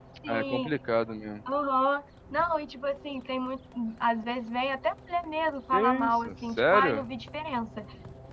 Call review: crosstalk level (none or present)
present